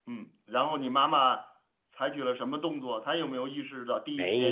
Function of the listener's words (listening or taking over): taking over